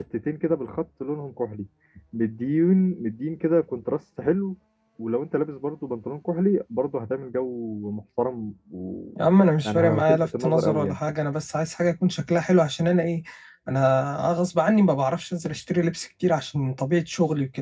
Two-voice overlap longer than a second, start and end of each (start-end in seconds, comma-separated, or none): 9.6-11.0